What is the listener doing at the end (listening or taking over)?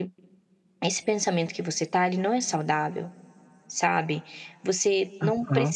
listening